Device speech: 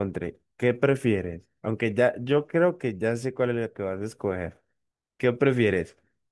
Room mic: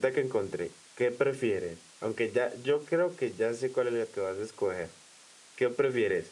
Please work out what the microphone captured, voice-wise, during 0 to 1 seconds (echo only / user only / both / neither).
echo only